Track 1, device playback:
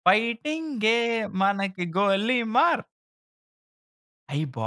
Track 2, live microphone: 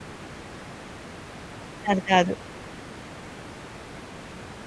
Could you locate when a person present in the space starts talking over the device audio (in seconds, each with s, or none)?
1.9 s